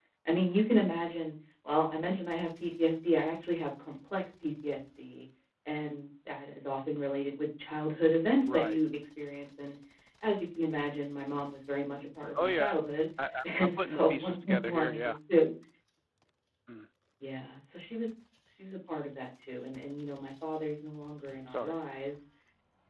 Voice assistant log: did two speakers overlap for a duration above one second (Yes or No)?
Yes